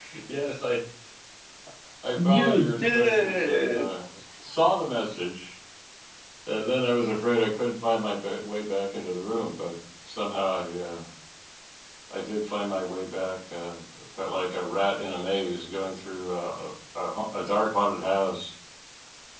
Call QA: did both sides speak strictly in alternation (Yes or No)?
No